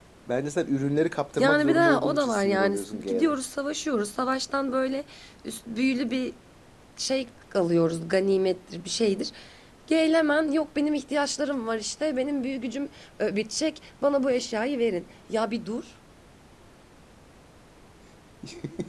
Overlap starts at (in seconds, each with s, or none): 1.4 s